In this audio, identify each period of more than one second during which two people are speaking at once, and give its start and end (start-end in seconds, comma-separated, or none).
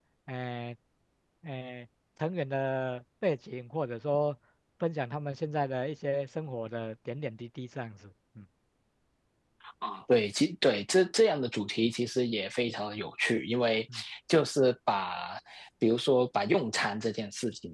none